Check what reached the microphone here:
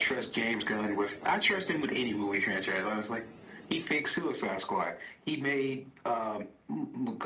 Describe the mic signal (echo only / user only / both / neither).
echo only